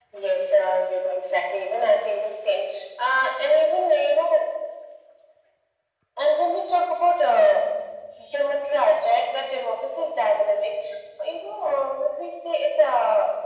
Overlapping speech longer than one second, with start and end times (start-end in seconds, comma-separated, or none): none